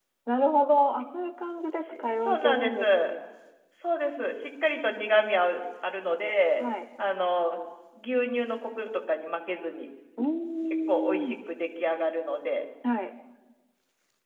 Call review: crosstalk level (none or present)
present